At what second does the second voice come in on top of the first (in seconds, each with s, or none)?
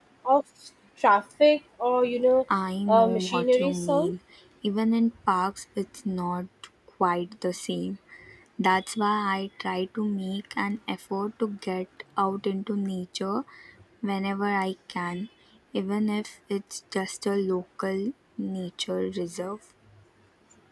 2.9 s